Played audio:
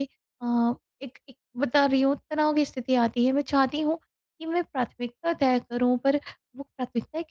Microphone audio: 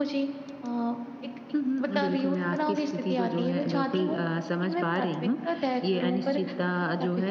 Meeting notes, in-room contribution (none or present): present